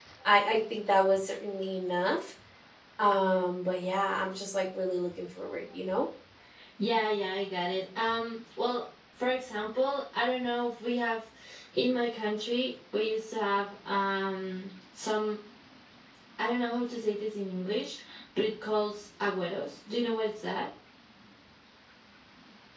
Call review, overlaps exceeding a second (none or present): none